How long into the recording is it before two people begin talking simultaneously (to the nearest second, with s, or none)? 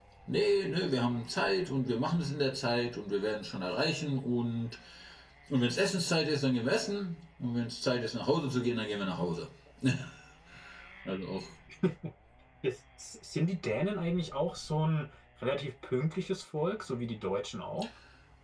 none